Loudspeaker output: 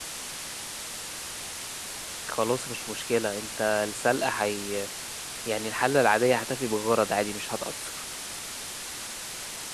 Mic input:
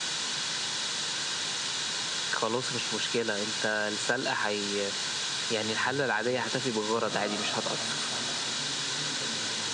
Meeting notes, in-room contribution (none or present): present